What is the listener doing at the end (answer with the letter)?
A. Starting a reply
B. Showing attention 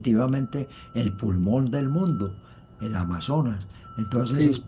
B